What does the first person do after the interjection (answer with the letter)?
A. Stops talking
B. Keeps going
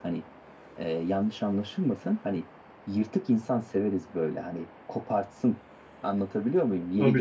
B